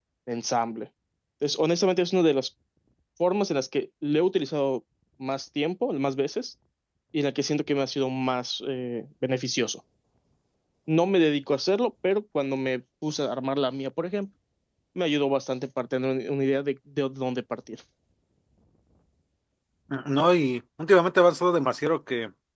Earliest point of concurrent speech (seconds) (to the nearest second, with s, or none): none